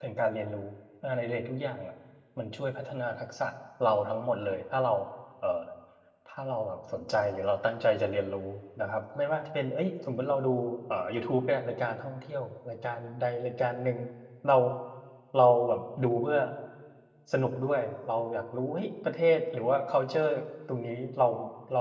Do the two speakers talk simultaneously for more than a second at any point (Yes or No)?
No